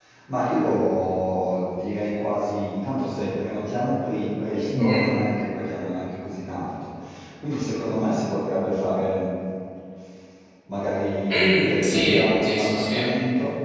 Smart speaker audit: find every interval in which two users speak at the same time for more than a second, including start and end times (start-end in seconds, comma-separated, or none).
11.3-13.1